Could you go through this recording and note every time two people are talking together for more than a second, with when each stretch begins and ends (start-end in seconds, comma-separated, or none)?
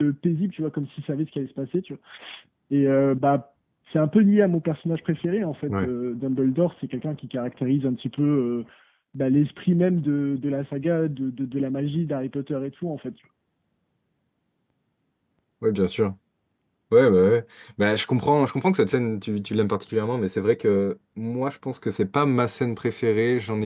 none